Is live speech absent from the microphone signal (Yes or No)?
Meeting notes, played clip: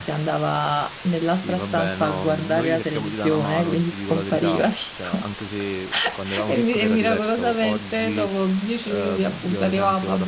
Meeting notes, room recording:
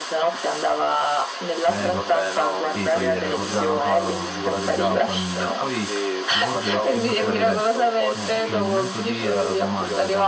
No